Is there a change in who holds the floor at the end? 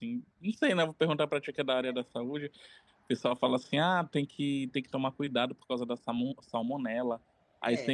No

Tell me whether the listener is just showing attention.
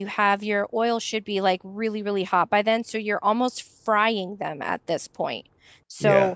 Yes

